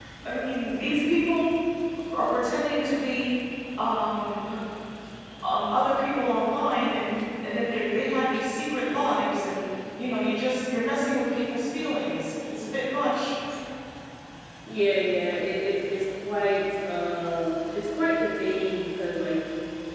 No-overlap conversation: Yes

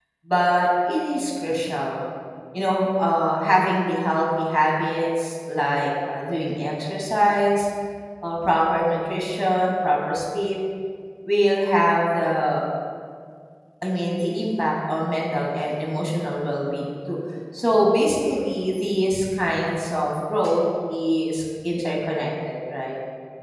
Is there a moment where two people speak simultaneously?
No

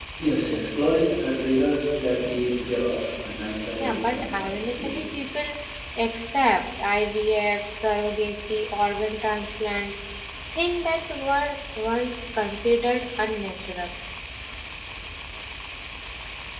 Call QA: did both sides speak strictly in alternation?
No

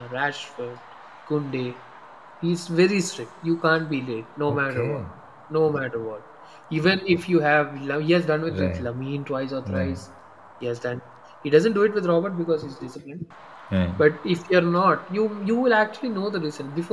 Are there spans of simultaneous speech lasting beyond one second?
No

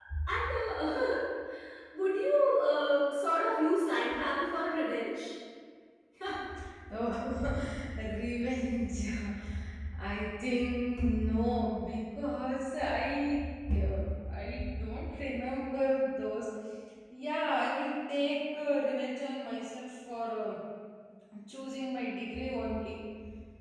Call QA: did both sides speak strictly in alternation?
Yes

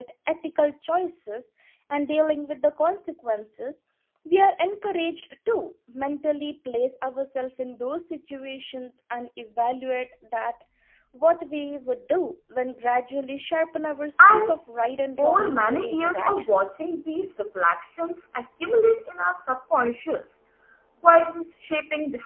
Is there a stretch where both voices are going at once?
Yes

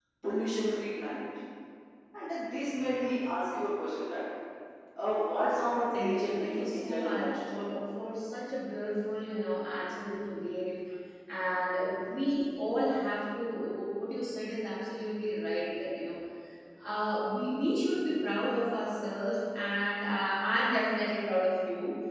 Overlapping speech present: Yes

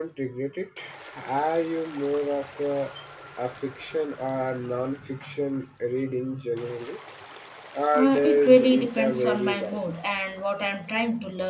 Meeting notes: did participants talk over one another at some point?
Yes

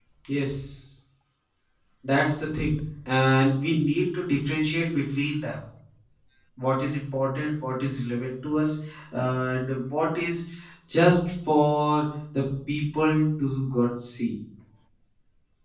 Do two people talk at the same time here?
No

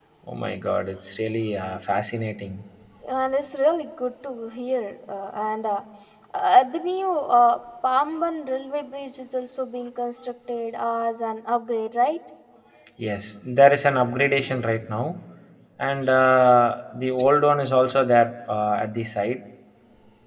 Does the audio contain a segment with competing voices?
No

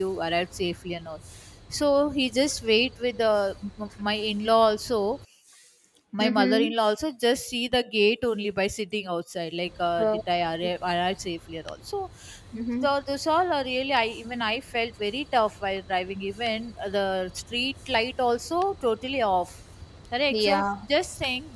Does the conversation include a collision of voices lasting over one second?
No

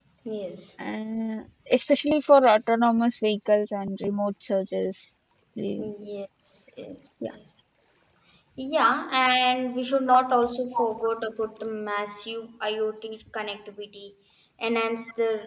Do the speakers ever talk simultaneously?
No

